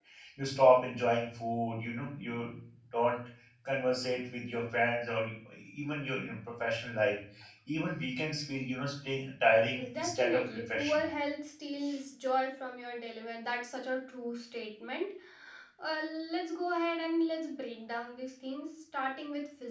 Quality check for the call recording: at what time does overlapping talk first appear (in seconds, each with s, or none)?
9.8 s